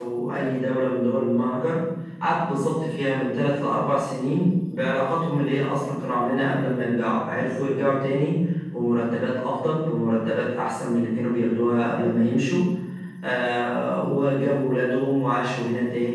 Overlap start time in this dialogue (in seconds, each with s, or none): none